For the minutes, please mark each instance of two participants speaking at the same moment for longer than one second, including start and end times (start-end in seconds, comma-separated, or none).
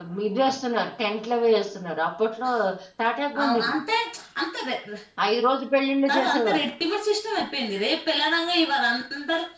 none